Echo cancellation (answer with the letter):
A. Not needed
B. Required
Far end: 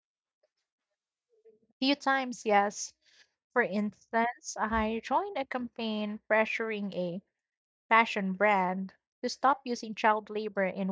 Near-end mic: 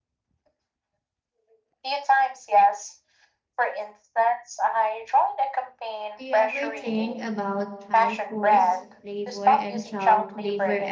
B